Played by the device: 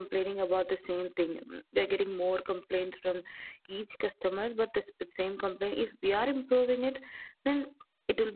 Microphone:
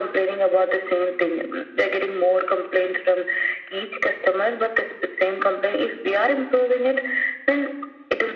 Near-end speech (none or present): none